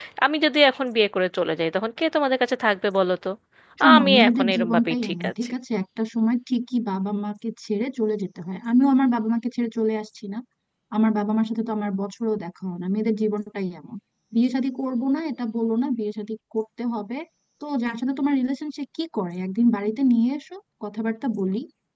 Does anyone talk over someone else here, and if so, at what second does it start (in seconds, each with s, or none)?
4.0 s